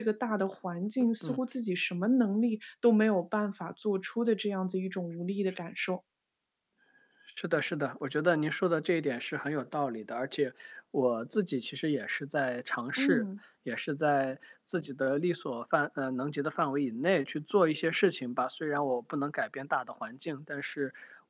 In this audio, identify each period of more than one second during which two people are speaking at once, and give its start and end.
none

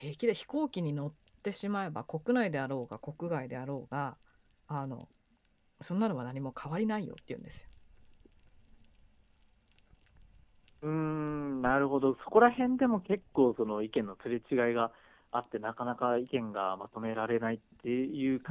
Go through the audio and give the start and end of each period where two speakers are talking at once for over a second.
none

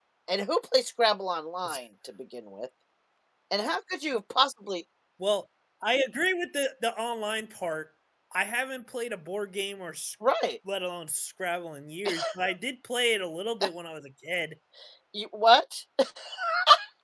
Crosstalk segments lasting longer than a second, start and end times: none

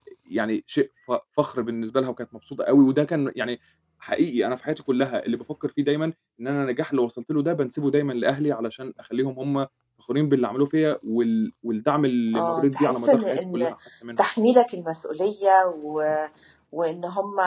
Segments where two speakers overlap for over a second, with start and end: 12.4-13.6

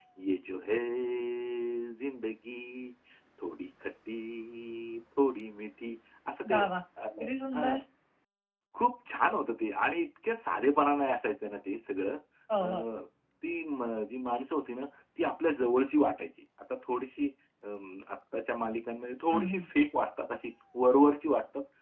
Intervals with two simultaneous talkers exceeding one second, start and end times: none

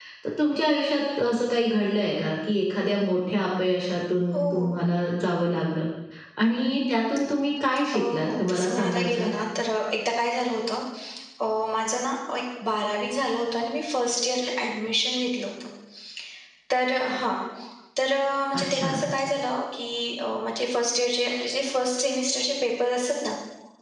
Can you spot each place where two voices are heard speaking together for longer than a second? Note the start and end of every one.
7.9-9.3

